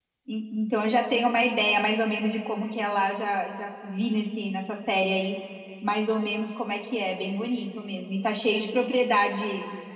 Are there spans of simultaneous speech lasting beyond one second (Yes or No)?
No